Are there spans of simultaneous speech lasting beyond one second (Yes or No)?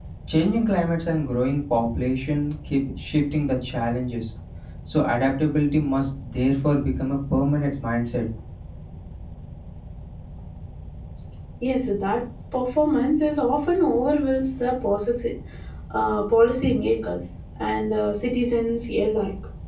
No